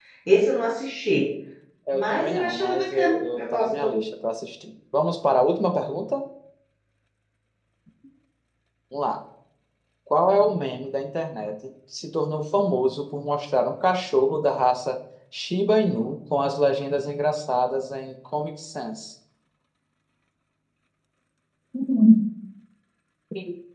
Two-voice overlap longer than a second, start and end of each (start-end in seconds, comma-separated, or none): 1.9-3.9